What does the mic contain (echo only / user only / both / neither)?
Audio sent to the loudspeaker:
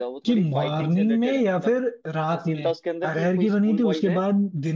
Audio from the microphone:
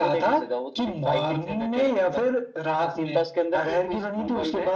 echo only